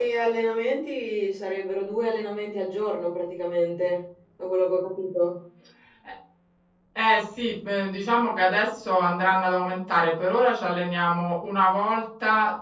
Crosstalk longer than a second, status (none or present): none